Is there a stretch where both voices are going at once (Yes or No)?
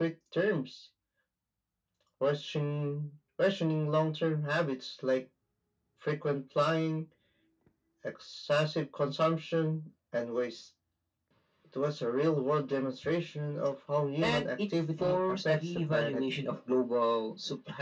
Yes